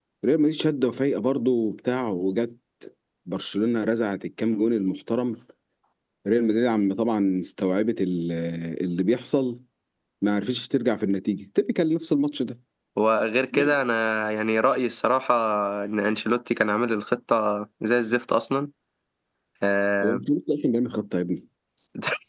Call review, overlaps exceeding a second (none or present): none